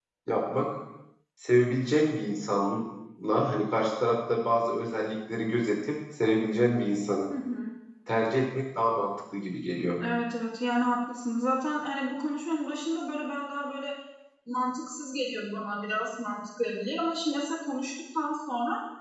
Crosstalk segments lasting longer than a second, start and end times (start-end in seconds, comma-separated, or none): none